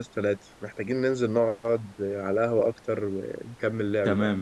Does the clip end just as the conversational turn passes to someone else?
Yes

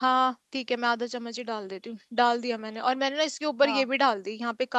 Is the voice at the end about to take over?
No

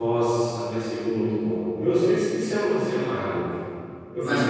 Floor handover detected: Yes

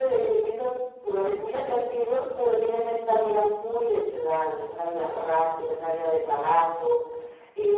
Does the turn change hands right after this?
No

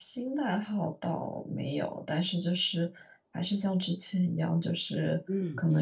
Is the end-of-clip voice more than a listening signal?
No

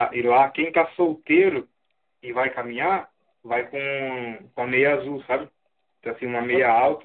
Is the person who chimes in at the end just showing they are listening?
Yes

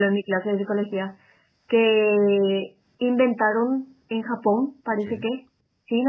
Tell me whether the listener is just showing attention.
Yes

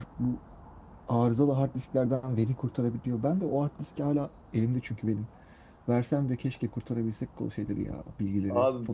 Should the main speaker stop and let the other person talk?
Yes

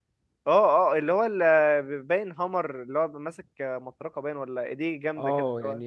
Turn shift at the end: Yes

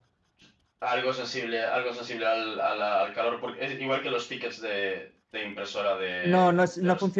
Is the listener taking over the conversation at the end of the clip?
Yes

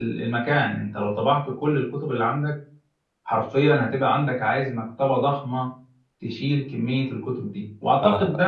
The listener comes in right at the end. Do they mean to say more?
No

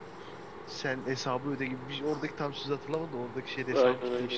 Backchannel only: No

